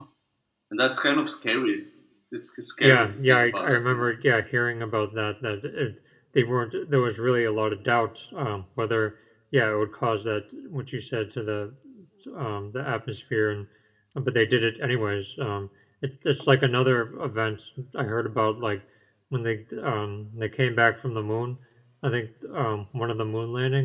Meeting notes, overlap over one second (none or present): present